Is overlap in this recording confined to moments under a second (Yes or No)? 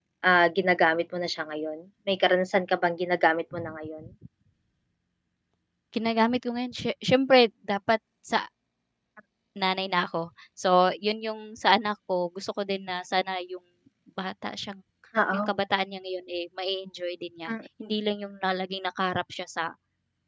Yes